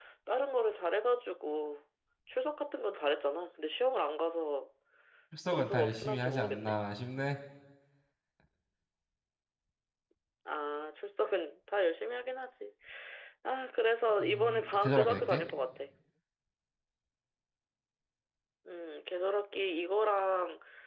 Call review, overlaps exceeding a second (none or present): present